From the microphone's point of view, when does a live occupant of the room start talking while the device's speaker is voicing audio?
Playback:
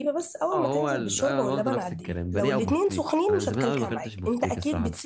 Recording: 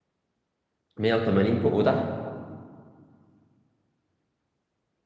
1.0 s

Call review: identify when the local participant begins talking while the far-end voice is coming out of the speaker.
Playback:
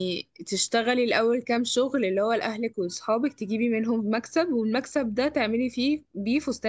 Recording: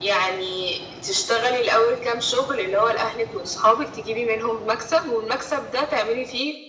none

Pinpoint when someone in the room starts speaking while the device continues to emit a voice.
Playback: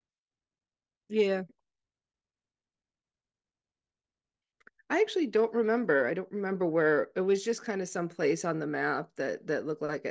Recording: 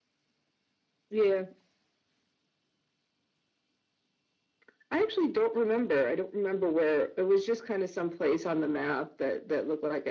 none

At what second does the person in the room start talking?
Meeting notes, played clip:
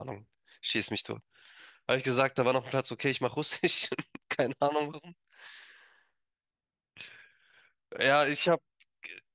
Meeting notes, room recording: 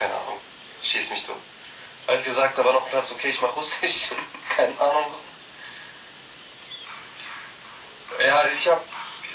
none

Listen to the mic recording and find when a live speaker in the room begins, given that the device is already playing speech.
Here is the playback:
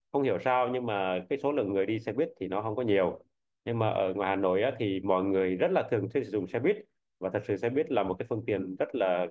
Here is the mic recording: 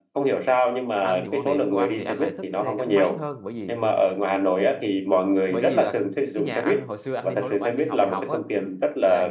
1.0 s

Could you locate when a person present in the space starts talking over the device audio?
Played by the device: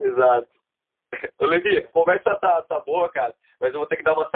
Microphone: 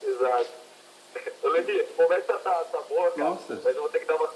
3.1 s

